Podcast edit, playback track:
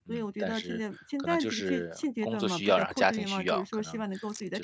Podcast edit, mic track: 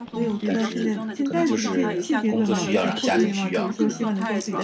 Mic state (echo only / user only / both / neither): both